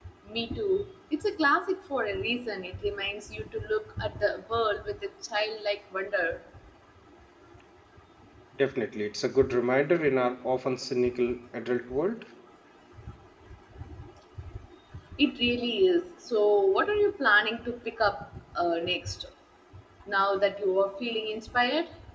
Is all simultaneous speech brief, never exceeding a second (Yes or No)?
Yes